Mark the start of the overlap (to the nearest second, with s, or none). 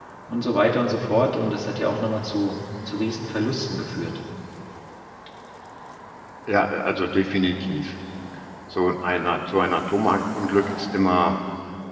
none